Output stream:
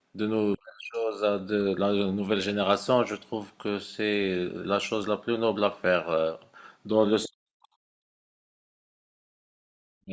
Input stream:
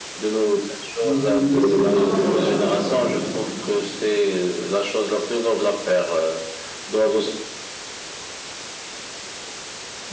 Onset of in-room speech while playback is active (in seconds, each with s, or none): 1.0 s